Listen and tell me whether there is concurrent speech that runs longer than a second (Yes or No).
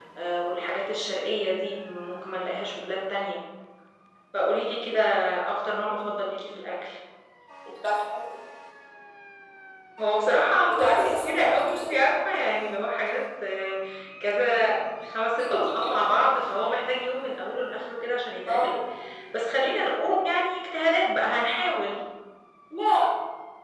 Yes